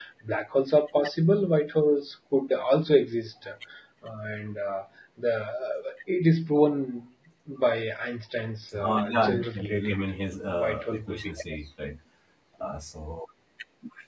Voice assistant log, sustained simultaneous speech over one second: present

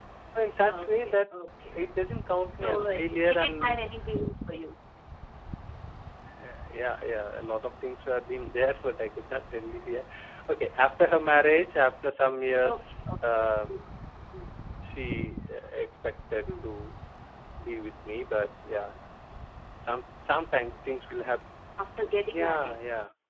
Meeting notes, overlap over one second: present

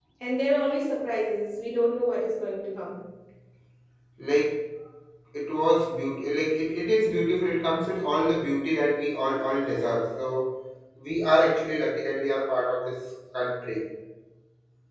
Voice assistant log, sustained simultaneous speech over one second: none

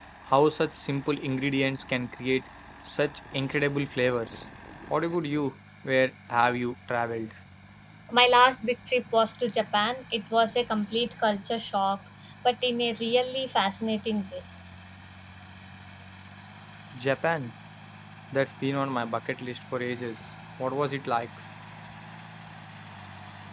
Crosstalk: none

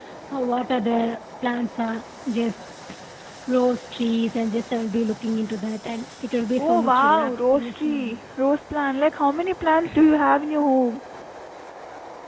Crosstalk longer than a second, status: present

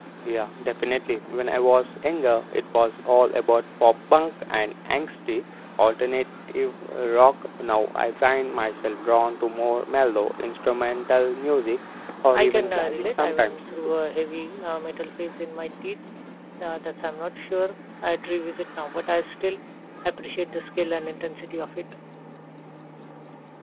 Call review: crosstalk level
present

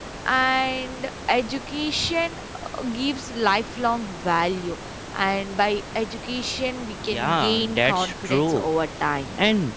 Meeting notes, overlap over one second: present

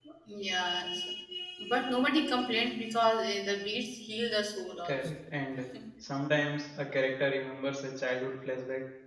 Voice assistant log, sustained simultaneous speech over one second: none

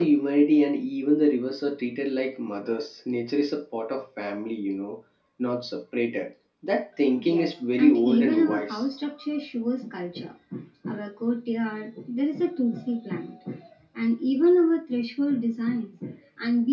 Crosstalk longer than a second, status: present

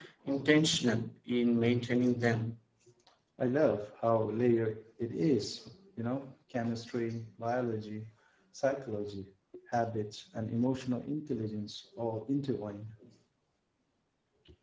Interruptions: none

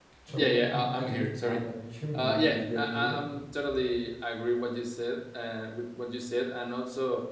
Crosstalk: present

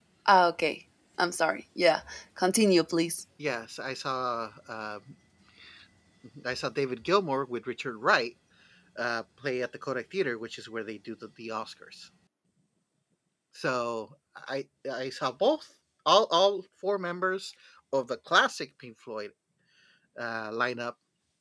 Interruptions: none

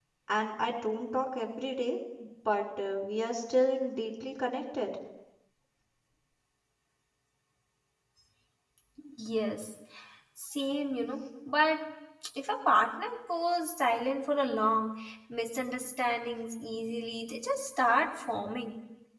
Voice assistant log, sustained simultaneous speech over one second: none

